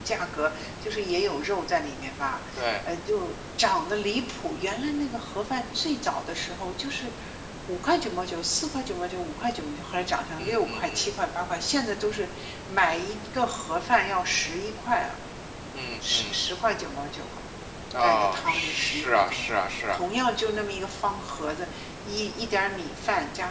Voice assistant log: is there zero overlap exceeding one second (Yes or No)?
No